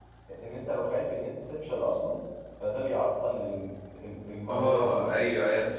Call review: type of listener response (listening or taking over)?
taking over